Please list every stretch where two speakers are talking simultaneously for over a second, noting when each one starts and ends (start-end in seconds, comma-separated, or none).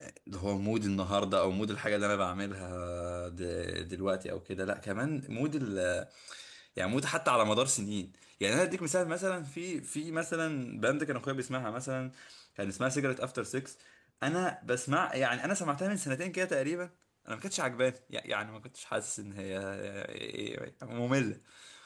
none